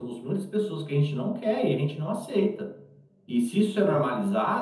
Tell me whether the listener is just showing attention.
Yes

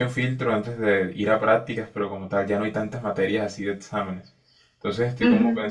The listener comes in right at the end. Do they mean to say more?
No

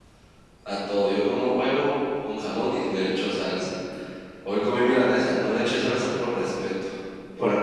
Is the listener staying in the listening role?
Yes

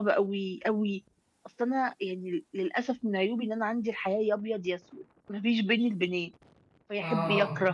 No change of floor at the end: Yes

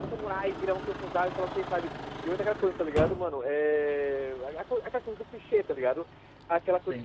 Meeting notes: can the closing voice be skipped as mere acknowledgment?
Yes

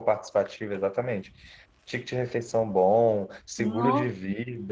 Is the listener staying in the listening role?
Yes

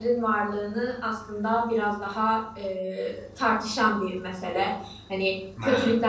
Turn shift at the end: No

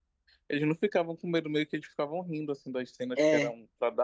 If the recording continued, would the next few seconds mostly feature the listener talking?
No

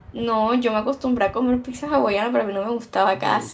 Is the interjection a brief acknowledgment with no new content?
No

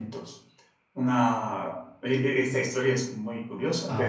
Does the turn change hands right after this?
No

